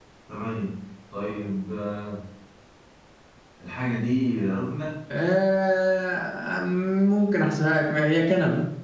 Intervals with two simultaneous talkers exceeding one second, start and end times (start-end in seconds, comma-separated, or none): none